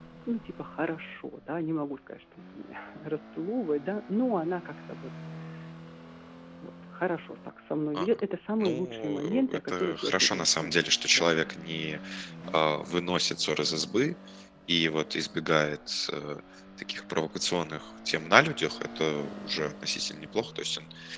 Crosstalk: present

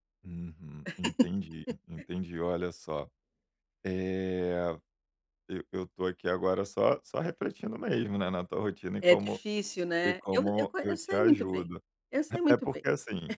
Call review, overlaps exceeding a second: present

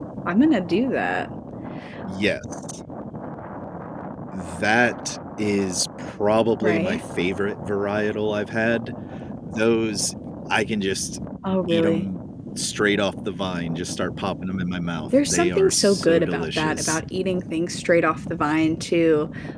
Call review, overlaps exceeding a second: present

